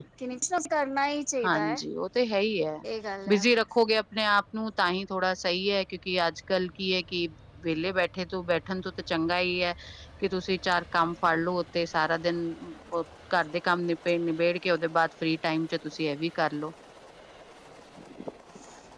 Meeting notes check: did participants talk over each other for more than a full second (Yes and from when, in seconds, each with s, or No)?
No